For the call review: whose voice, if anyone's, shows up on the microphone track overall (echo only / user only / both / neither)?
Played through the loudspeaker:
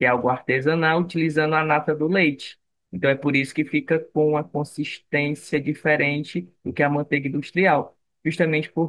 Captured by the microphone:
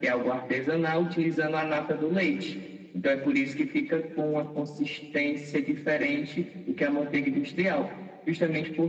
echo only